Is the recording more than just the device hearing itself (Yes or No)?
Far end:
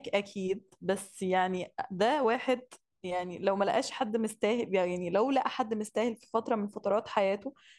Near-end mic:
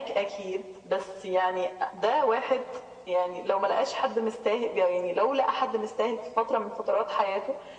No